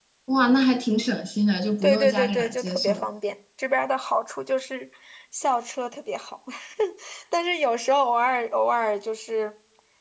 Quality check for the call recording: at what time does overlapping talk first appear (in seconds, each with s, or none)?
1.8 s